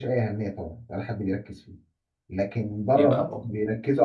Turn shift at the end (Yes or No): No